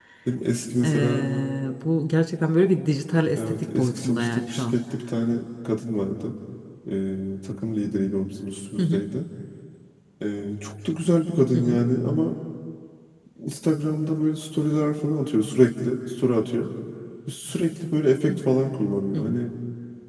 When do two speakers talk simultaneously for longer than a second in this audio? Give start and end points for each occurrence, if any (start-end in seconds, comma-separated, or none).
3.4-4.8